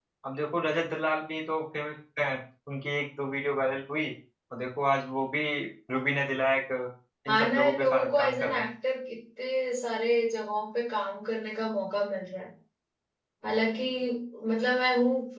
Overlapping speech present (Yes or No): Yes